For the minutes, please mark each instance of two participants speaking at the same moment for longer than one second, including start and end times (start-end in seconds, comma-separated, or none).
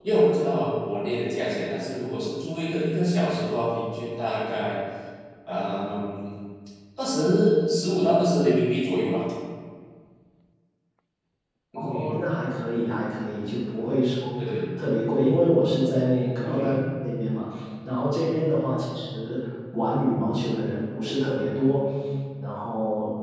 none